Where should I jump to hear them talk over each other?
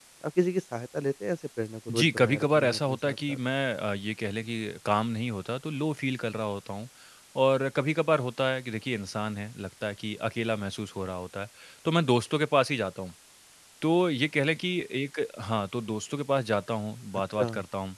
1.9 s

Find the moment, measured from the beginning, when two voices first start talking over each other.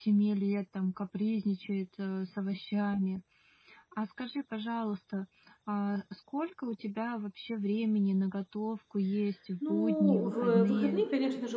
9.6 s

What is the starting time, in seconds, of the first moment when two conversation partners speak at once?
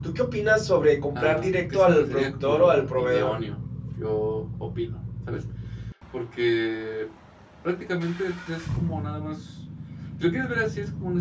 1.1 s

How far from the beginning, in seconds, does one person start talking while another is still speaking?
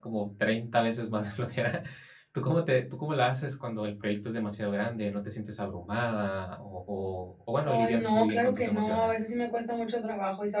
7.6 s

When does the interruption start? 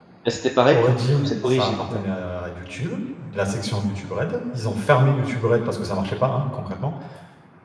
0.7 s

